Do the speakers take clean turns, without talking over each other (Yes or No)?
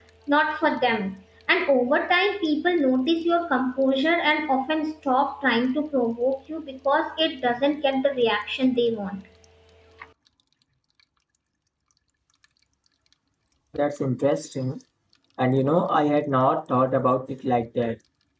Yes